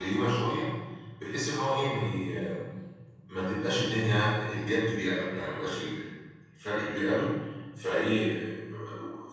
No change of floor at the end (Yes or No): Yes